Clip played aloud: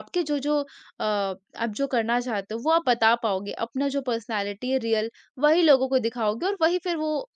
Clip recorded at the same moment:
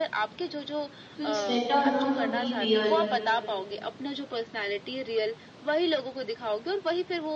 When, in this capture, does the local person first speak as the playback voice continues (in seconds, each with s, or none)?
1.1 s